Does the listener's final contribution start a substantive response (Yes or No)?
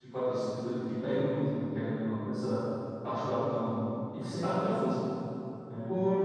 Yes